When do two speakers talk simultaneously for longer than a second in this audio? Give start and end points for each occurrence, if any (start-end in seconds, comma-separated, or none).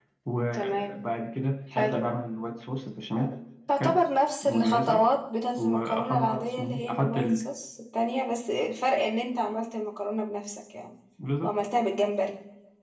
5.6-7.4